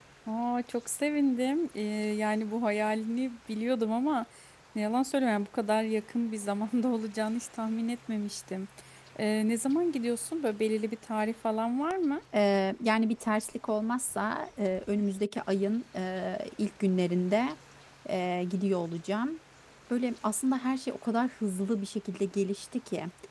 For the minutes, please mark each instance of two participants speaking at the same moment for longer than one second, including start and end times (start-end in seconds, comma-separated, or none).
none